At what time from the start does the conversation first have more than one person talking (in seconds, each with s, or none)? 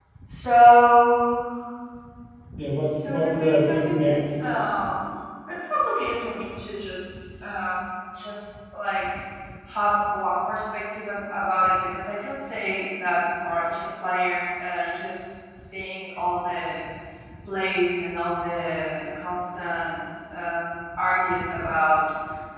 2.9 s